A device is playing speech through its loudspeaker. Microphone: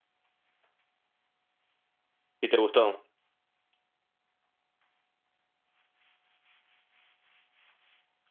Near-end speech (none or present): present